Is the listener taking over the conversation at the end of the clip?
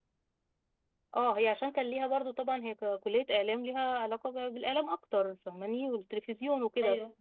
No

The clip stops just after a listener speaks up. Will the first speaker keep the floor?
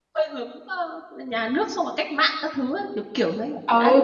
No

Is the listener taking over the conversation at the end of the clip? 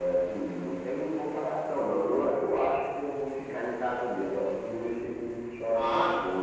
Yes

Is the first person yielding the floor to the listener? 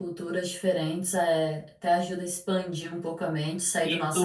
Yes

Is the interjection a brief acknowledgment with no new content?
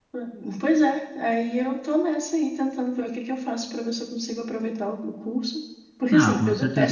No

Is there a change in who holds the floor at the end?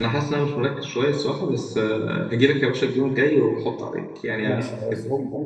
Yes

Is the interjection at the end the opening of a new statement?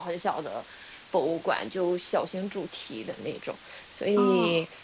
No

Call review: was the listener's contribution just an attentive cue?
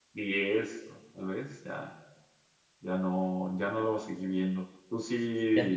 Yes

